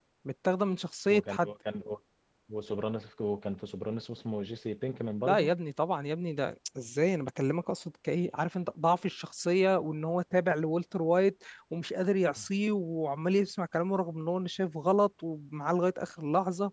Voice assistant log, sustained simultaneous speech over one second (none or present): none